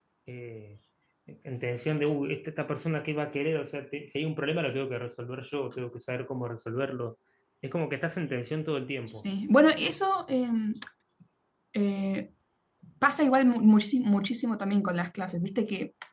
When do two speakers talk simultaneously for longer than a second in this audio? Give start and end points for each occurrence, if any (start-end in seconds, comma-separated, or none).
none